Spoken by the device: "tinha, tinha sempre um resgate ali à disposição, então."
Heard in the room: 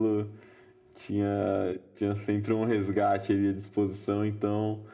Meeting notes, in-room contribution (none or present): none